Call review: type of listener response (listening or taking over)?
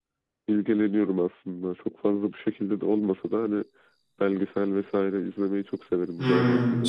taking over